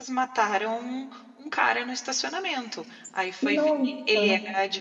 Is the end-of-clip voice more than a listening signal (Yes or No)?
No